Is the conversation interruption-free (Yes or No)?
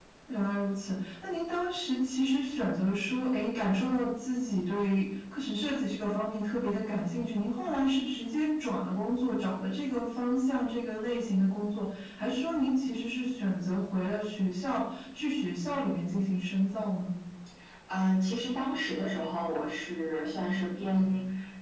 Yes